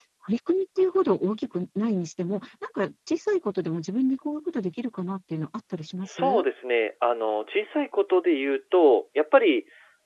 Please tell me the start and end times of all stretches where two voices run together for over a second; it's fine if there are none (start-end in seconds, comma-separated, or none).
none